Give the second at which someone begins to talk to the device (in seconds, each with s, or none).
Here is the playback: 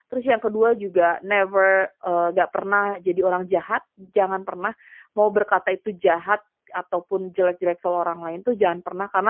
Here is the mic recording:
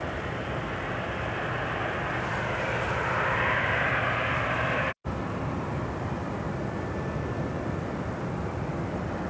none